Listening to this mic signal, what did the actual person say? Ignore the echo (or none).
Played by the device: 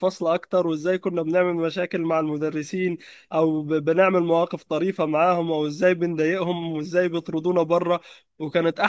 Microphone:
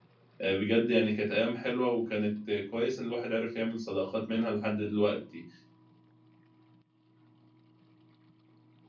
آه، بجد يعني كانت ايام حلوه وكانت كويس ان الواحد عرف يعمل صداقات منها لحد دلوقتي